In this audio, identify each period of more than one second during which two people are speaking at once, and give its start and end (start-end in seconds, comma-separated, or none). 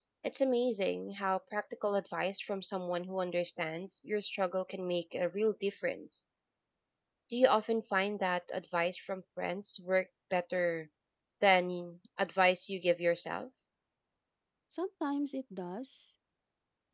none